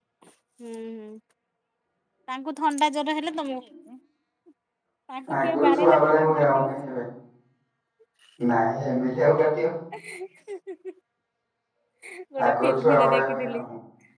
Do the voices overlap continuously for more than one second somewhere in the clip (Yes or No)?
Yes